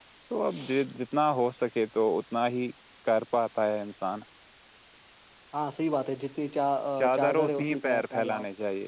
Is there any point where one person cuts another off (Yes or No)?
Yes